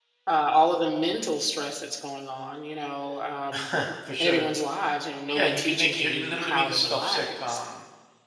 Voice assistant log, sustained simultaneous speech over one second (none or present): present